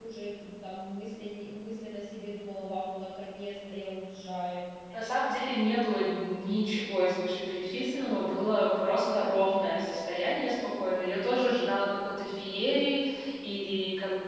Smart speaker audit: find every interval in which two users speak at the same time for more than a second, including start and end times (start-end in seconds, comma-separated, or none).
none